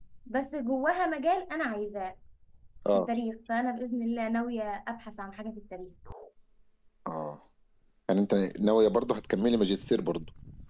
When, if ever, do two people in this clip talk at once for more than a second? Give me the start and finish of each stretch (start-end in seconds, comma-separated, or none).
none